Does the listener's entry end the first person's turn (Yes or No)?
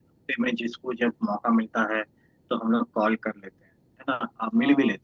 No